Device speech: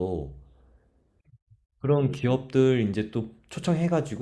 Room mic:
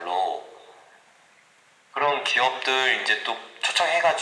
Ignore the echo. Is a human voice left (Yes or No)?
No